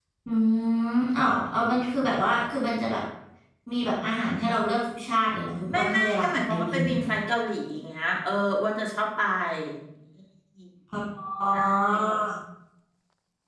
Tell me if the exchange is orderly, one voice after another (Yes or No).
No